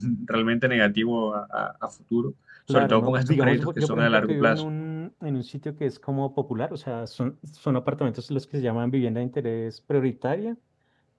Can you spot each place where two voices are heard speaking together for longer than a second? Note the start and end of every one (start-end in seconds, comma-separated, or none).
2.7-4.6